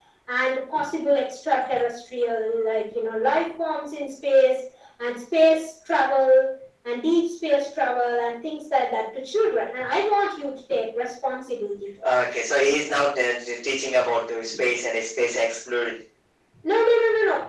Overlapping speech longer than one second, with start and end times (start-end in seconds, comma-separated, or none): none